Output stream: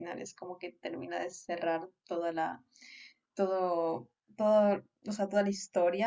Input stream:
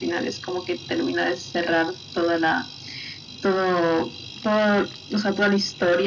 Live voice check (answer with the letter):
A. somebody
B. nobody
B